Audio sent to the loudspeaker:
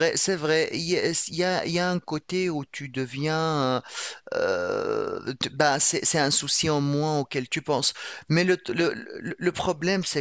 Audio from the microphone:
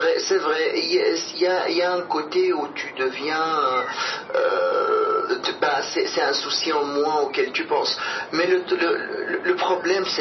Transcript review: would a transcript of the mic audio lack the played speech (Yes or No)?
No